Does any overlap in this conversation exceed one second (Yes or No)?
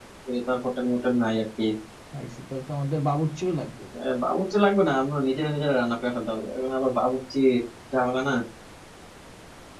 No